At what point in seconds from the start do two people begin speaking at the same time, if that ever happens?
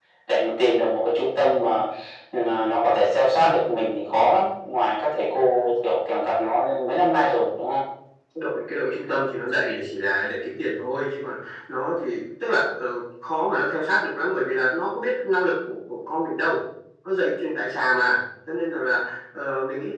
none

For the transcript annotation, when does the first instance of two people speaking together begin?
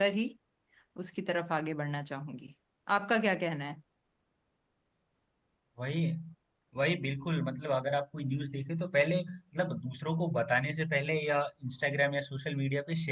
none

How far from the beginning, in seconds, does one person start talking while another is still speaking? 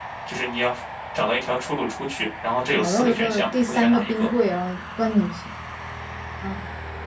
2.7 s

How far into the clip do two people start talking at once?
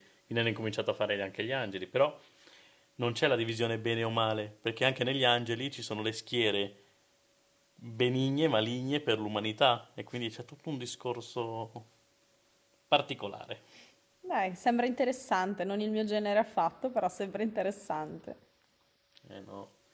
none

